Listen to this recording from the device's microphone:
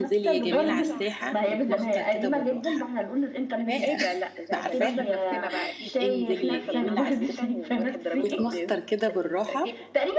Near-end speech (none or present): present